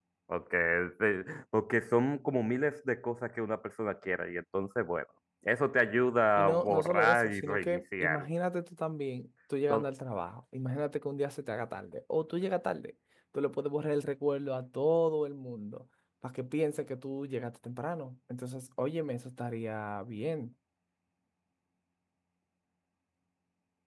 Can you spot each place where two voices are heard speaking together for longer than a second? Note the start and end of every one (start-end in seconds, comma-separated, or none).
6.4-8.2